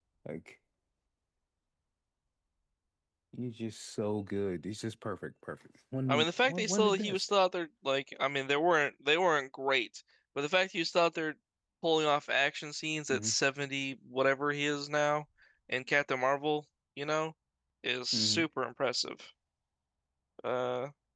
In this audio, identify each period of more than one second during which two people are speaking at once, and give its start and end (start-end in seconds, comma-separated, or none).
6.1-7.3